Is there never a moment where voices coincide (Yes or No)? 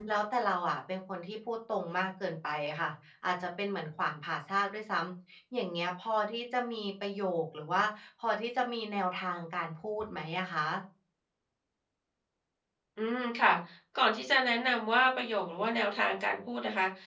Yes